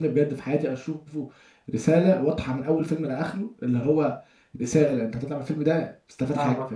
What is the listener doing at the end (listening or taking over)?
taking over